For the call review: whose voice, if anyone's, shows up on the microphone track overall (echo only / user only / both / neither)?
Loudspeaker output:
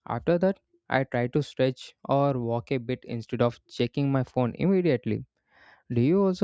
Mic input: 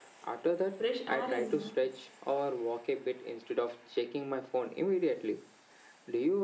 both